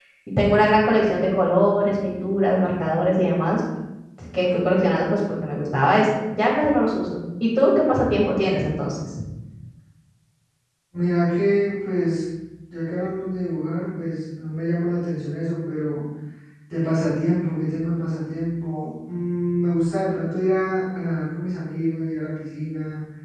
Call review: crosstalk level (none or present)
none